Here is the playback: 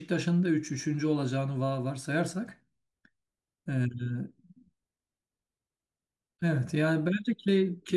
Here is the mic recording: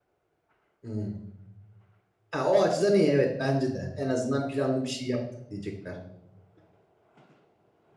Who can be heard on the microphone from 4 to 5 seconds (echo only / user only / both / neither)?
user only